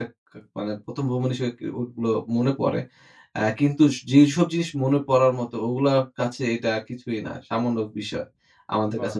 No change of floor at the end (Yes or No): Yes